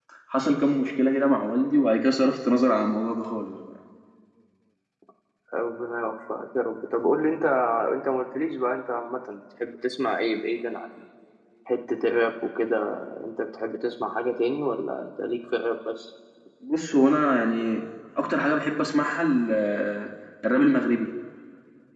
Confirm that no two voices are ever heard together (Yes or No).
Yes